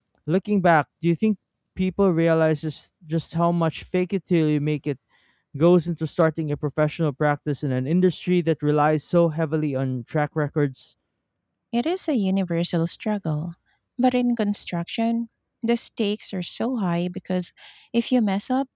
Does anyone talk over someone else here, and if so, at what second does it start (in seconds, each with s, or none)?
none